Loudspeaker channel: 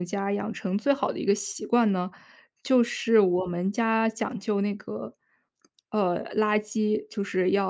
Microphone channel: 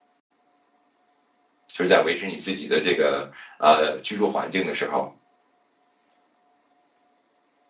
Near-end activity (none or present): present